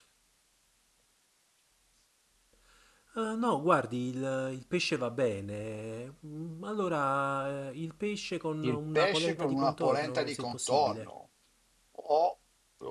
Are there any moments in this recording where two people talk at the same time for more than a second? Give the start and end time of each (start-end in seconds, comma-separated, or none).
8.6-11.1